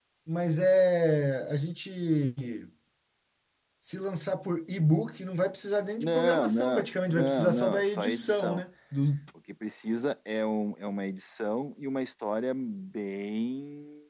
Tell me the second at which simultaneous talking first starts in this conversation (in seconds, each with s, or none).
6.0 s